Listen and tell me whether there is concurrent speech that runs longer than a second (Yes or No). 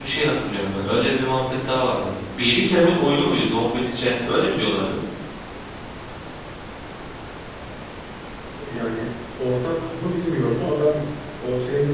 No